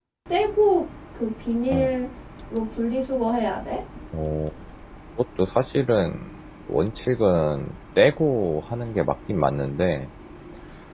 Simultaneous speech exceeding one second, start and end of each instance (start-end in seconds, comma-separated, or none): none